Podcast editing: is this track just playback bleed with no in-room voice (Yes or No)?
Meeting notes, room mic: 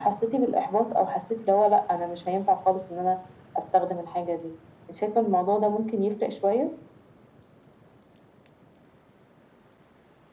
Yes